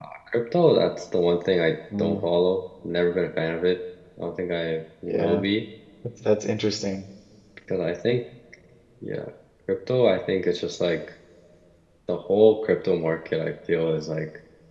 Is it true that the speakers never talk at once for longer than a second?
Yes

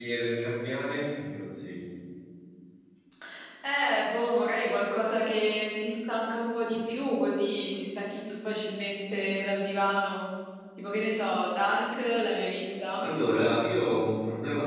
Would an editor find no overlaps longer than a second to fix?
Yes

